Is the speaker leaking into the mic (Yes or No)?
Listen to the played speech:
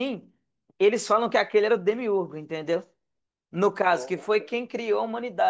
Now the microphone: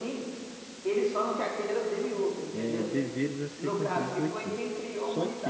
Yes